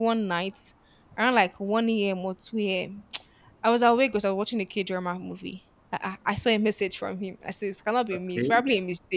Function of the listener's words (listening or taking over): listening